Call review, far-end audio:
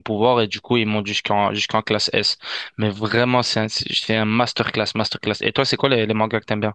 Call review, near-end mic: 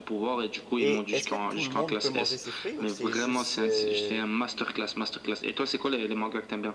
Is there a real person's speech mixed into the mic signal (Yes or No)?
Yes